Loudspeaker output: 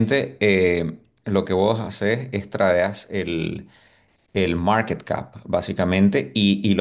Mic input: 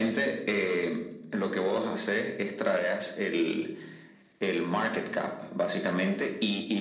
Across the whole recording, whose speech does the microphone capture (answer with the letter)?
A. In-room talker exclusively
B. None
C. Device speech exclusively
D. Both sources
C